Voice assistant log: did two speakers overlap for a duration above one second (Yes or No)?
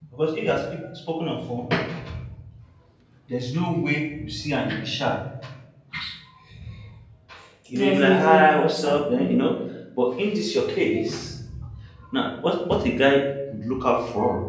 Yes